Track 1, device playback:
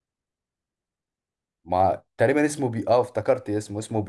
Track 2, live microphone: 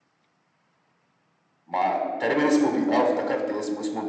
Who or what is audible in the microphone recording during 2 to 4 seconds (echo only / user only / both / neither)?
echo only